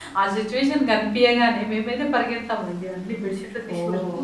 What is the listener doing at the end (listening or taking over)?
listening